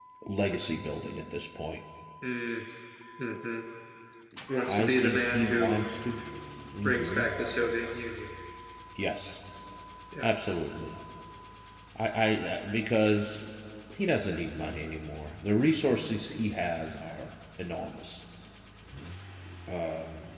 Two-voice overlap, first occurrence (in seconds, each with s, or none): 4.6 s